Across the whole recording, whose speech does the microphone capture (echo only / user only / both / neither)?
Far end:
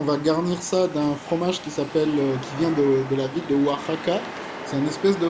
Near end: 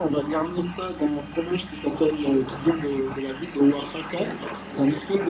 echo only